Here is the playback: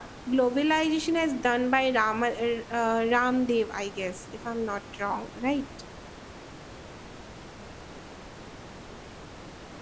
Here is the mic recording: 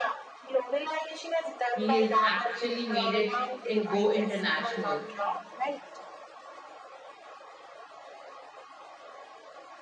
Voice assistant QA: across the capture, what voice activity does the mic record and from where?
both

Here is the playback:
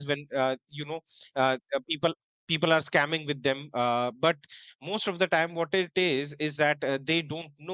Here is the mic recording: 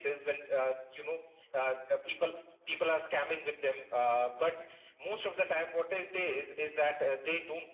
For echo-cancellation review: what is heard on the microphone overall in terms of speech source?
echo only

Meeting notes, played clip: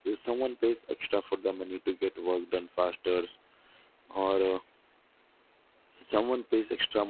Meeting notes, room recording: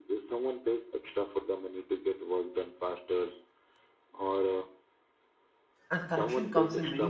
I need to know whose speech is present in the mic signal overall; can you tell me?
both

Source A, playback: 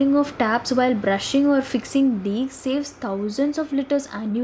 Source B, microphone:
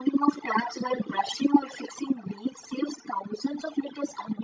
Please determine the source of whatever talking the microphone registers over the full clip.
echo only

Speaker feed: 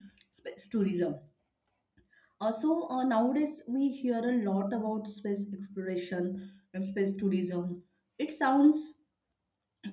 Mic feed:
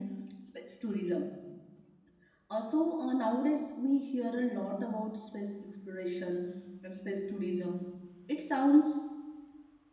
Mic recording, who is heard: echo only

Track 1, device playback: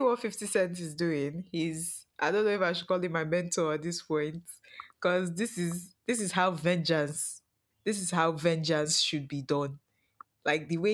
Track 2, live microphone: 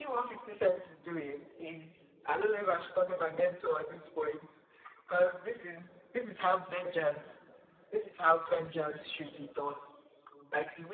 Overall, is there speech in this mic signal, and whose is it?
echo only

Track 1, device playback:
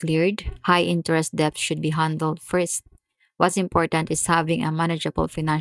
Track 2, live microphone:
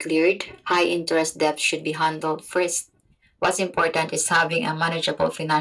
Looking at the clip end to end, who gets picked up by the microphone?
echo only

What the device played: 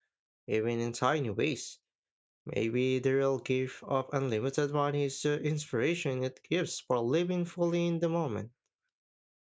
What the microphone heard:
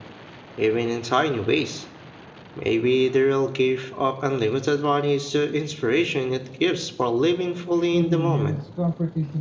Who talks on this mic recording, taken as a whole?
both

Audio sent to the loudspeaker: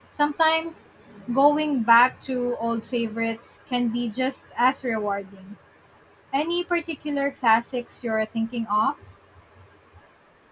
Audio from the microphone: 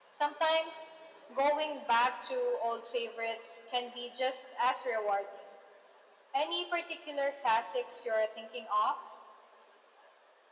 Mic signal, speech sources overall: echo only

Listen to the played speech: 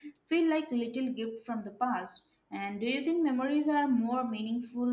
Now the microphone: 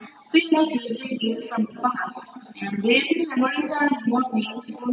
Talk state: echo only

